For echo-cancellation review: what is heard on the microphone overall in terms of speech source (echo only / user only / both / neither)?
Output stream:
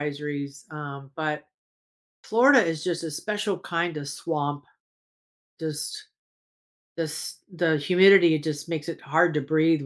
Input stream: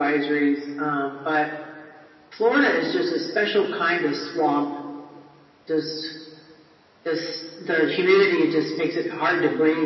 echo only